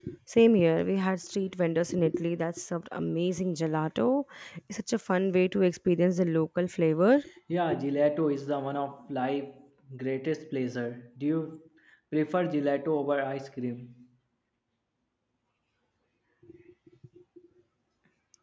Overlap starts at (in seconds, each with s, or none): none